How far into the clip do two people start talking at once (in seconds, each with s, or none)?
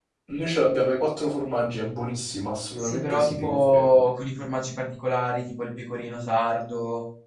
2.8 s